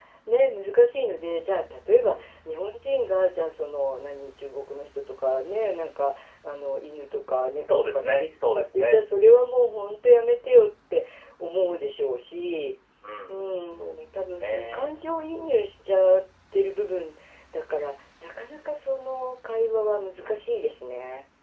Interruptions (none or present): present